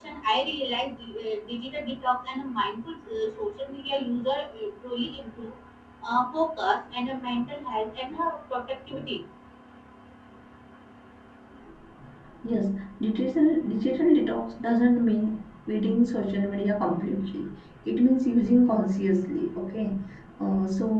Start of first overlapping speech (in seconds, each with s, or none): none